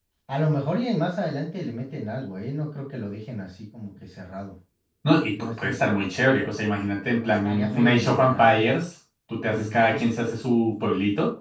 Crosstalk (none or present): present